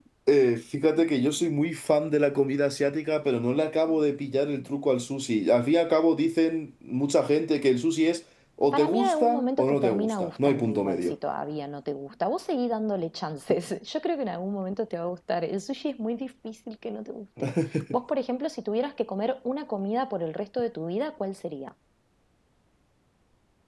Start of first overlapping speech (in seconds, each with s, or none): 8.7 s